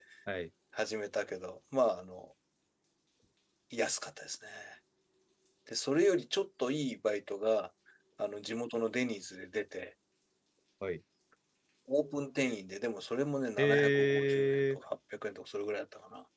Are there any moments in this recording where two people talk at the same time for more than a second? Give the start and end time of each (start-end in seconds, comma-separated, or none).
13.6-14.8